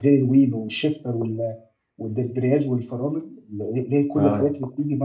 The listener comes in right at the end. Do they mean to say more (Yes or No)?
No